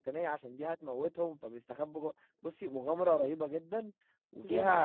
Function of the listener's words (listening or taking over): listening